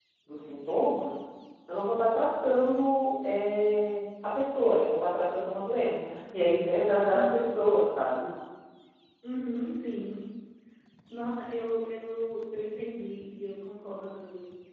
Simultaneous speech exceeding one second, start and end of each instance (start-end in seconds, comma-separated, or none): none